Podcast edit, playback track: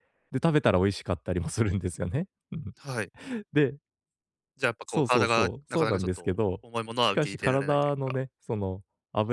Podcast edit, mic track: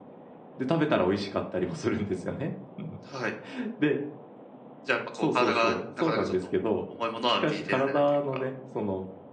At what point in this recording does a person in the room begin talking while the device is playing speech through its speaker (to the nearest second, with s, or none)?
none